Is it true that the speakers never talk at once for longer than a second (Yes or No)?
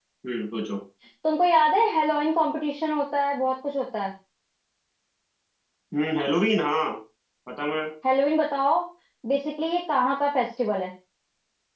Yes